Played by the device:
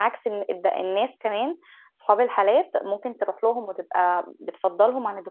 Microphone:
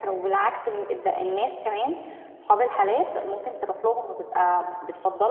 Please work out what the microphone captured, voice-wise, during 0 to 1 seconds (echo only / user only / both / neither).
echo only